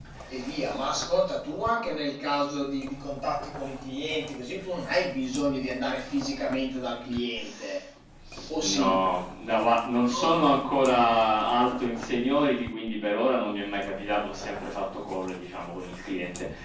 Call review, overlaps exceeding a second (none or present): none